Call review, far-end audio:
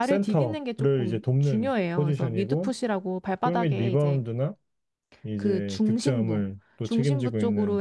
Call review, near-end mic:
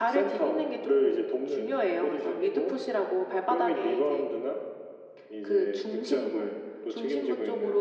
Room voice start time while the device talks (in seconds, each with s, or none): none